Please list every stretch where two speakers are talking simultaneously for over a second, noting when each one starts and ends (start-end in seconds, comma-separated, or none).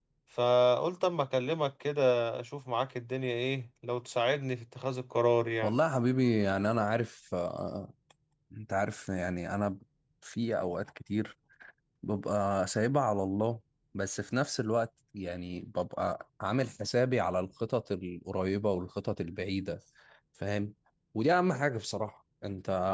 none